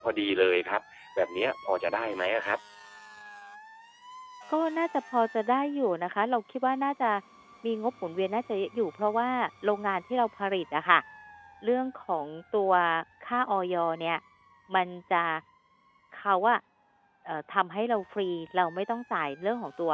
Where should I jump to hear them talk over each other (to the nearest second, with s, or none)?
none